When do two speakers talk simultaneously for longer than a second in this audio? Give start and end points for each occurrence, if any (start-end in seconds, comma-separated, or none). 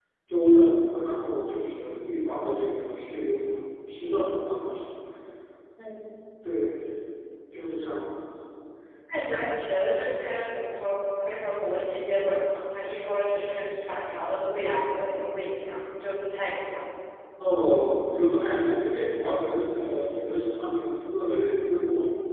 none